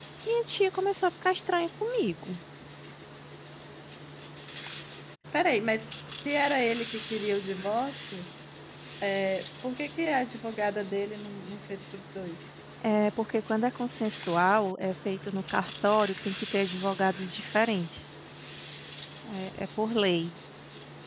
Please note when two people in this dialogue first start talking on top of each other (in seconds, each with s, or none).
none